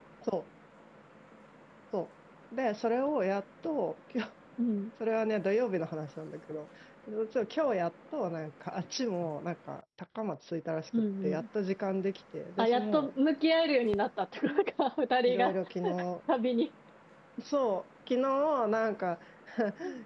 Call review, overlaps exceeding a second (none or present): none